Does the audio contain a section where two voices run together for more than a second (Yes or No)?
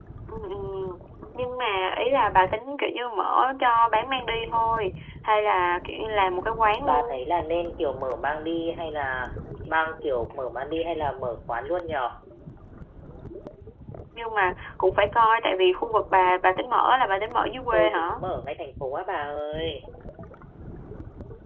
No